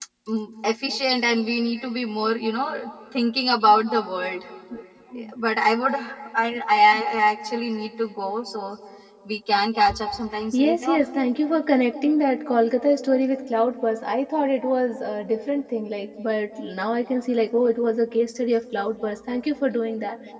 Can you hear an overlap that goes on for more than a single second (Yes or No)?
No